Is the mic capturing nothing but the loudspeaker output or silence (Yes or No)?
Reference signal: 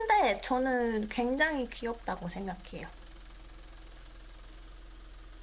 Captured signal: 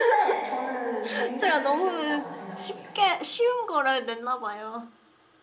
No